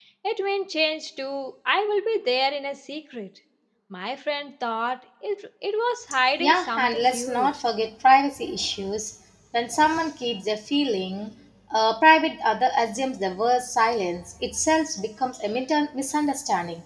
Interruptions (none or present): present